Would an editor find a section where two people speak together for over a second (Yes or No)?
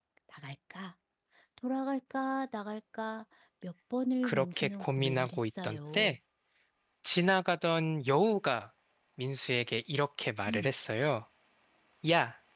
Yes